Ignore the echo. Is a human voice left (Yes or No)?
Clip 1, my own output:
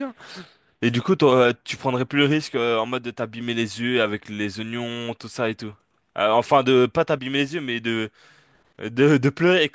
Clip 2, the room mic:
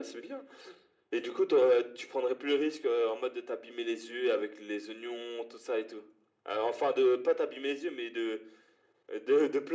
No